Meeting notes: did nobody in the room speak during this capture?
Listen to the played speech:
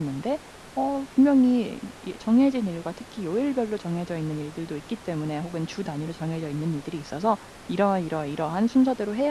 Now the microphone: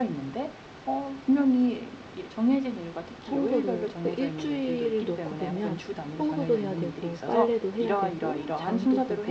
No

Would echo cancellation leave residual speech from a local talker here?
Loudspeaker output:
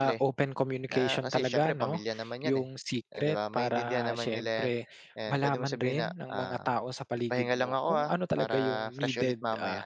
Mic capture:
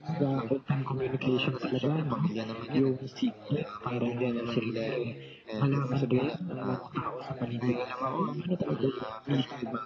Yes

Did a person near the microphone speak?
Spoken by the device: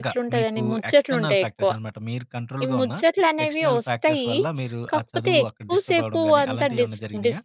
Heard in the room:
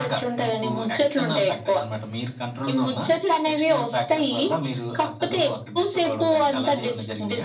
No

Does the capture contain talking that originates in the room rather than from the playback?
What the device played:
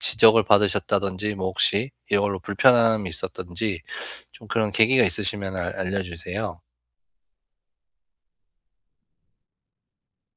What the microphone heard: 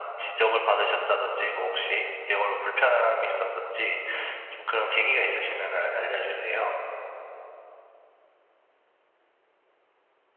No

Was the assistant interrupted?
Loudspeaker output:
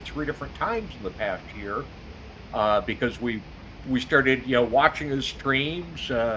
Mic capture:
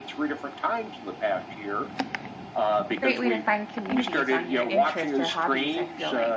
Yes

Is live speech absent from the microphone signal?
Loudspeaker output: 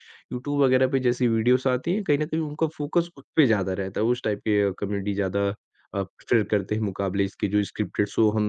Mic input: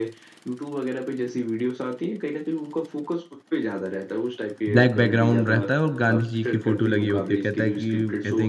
No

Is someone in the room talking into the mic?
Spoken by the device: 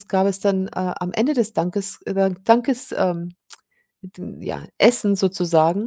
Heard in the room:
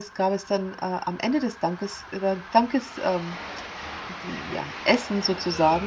No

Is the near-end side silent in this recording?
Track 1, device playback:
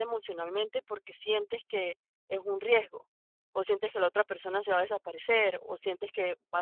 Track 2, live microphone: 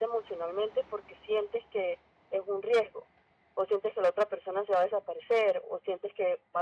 Yes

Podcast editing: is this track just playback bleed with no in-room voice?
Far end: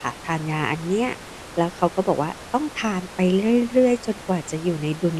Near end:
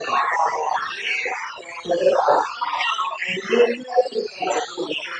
Yes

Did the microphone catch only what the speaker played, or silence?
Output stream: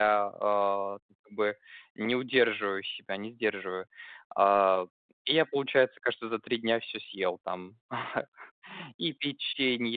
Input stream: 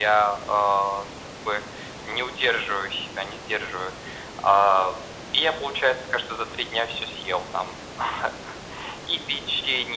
Yes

